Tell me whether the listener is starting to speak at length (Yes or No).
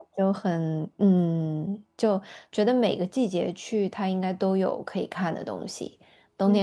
No